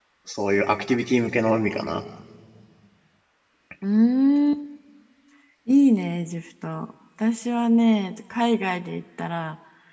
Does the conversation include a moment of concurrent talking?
No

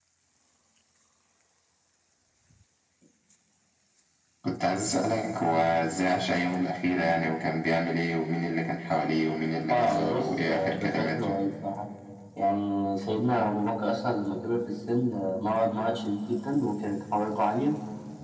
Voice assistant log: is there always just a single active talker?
No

